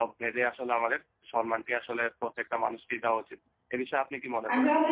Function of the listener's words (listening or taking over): taking over